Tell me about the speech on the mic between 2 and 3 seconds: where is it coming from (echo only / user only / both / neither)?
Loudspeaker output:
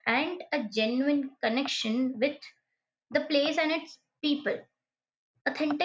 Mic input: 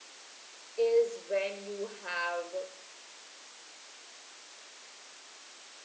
user only